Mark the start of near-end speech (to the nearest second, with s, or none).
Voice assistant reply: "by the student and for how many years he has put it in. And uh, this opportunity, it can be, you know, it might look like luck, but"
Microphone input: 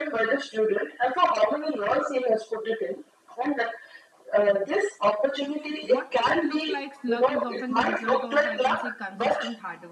6 s